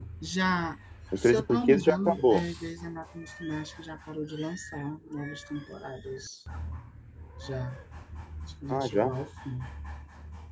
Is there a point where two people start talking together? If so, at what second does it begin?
1.2 s

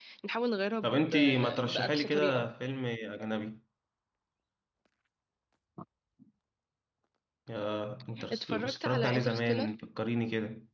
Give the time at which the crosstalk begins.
0.8 s

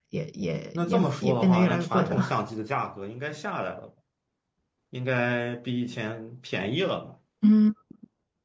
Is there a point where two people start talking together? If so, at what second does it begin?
0.7 s

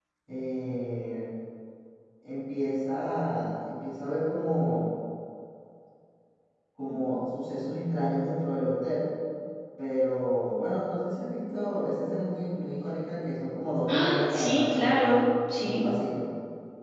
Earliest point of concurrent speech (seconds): 13.9 s

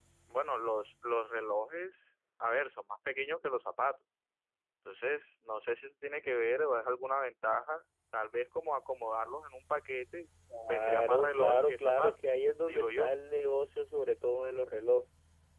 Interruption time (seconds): 10.7 s

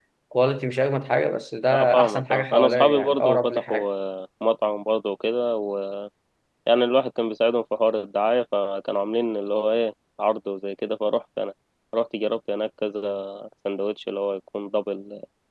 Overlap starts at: 1.7 s

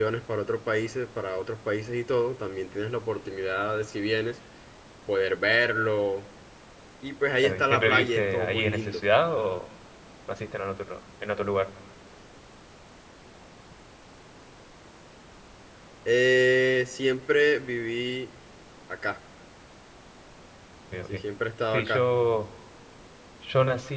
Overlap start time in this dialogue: 7.4 s

